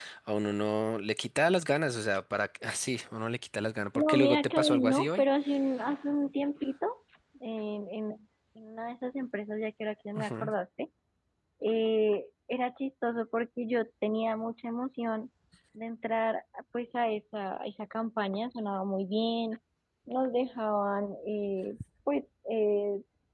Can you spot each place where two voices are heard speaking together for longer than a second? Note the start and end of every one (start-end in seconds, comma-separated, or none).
4.0-5.2